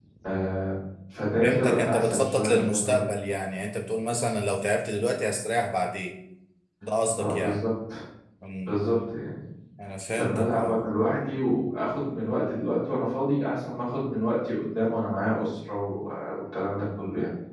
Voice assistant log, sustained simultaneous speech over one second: present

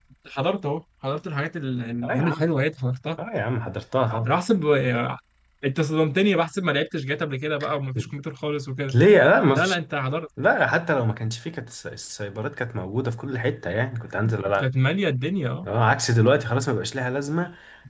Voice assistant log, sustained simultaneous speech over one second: none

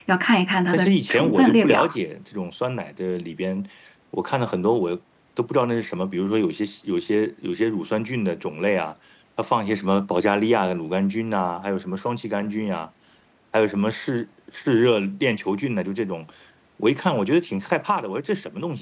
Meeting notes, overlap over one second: present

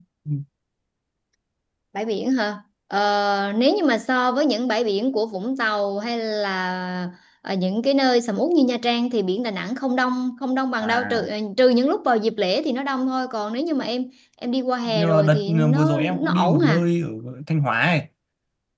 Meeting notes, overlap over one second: present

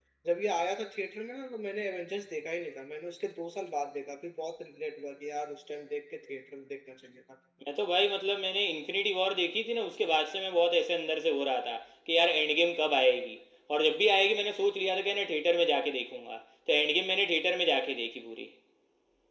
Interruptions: none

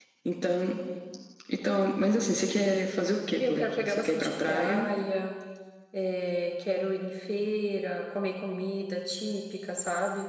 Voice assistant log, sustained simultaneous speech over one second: present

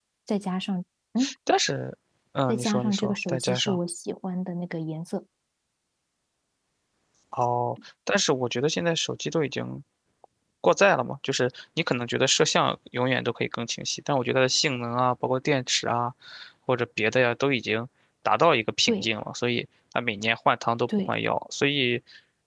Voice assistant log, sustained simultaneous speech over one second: present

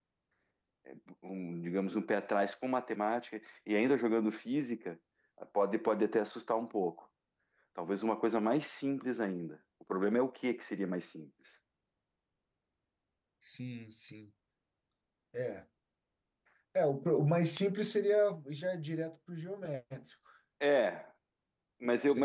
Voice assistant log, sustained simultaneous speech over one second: none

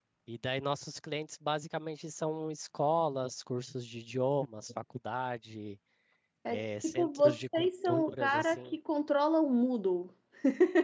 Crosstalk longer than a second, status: present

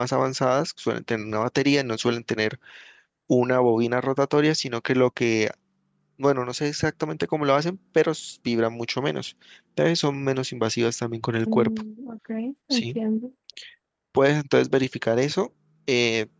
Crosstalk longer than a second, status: none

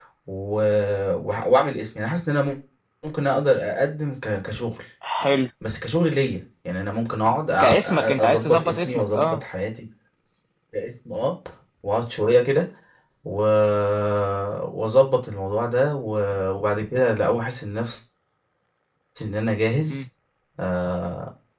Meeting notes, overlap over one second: present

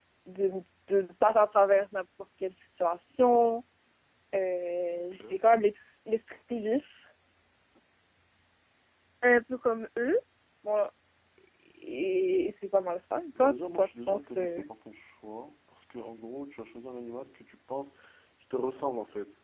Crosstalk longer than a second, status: present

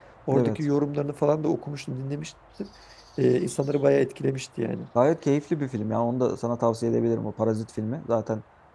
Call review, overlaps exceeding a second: none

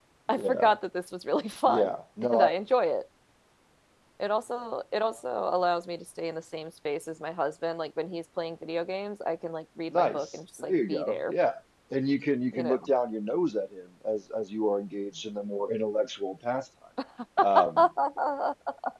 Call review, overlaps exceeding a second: present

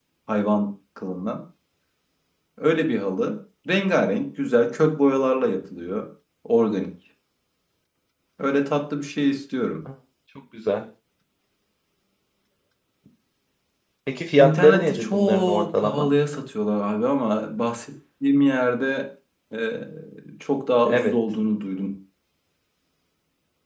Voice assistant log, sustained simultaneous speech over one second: present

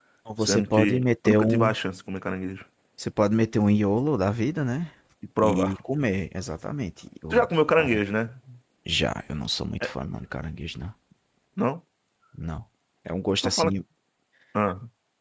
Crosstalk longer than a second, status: present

